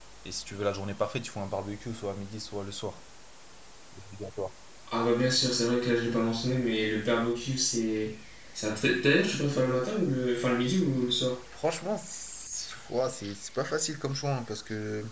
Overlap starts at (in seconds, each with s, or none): none